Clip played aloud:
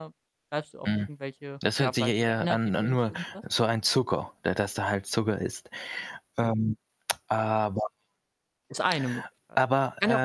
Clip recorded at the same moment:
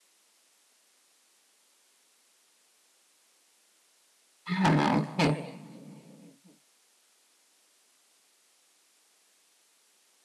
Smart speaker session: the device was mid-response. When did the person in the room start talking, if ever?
4.5 s

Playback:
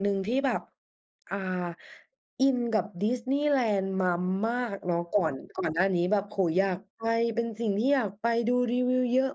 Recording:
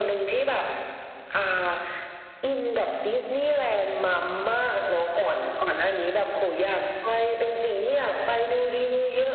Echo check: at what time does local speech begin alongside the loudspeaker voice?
none

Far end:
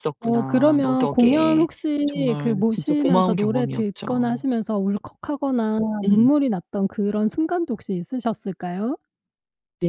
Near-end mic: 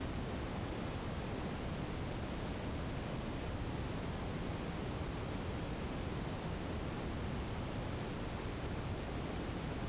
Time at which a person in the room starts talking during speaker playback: none

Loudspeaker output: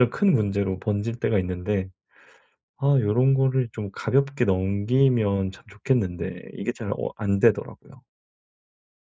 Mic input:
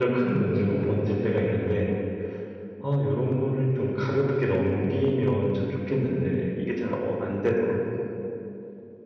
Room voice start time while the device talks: none

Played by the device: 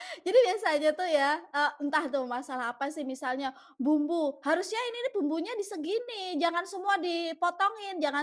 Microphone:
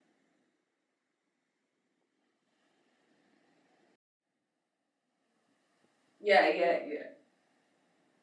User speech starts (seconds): 6.2 s

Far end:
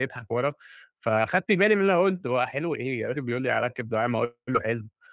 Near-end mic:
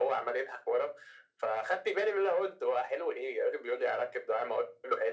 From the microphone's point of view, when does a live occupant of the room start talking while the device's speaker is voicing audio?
none

